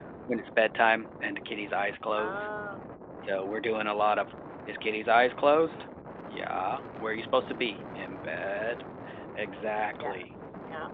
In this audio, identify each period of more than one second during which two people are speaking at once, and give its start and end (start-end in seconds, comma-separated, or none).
none